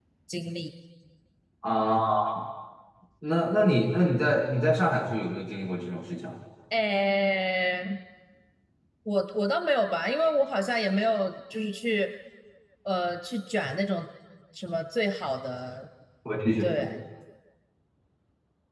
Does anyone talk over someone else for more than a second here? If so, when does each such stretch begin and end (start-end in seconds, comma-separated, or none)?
none